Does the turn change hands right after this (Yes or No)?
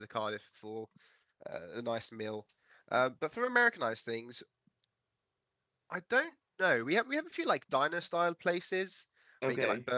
No